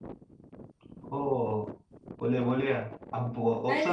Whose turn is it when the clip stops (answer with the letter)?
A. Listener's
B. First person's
A